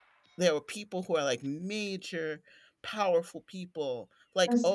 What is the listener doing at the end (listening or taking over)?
listening